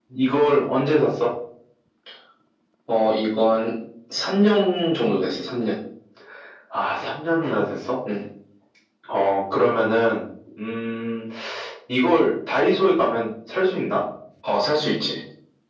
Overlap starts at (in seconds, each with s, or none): none